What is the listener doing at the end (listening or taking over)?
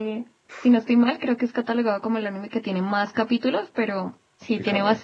listening